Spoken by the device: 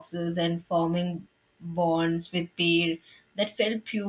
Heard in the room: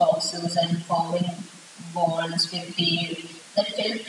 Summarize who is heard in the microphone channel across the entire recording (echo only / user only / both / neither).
echo only